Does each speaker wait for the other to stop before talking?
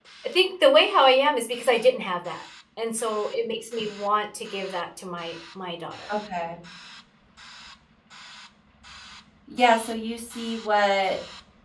Yes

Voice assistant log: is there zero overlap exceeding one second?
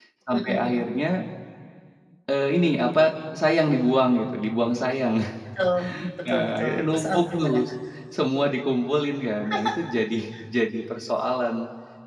No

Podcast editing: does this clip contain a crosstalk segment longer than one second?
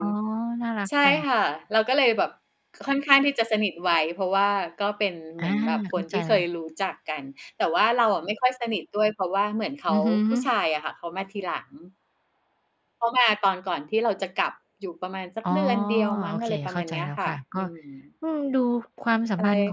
Yes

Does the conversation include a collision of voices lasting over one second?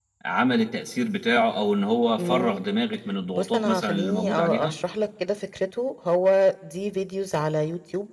Yes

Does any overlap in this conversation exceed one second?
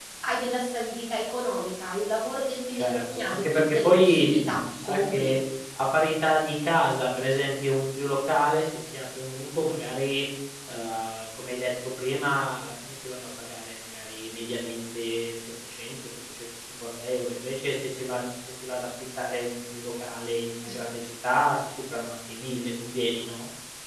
Yes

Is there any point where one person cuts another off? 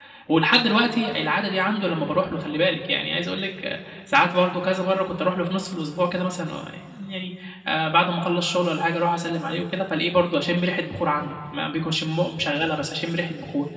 No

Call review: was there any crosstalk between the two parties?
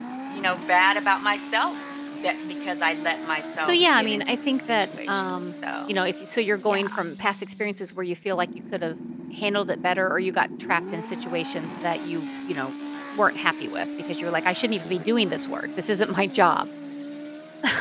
Yes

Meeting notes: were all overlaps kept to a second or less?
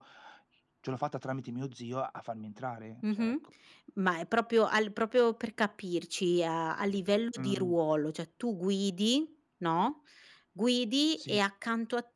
Yes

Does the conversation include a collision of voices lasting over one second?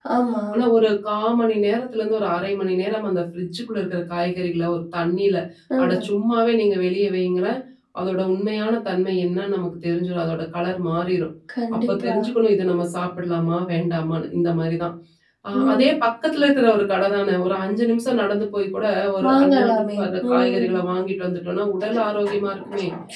Yes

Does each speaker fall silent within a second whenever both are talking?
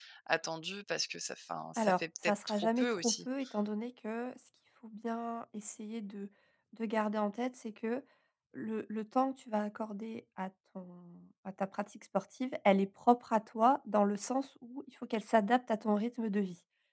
No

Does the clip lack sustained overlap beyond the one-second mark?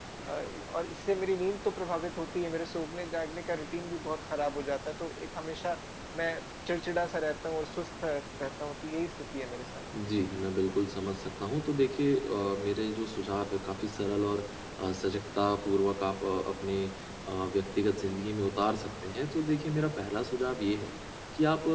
Yes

